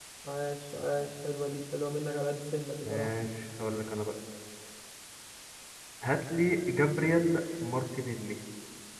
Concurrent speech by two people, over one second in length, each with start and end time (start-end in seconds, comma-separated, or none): none